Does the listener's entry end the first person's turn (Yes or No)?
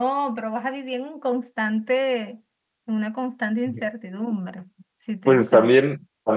Yes